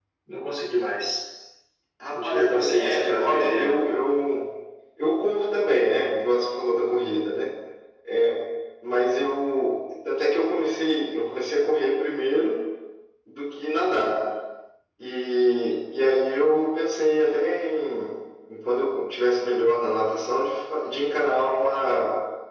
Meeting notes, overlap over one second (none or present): present